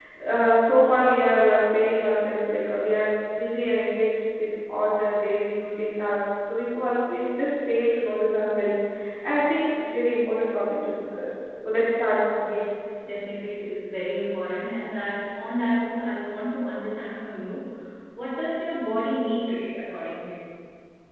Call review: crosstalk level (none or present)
none